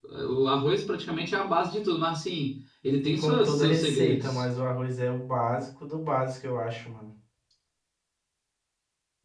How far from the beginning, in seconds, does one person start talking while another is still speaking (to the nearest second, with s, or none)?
3 s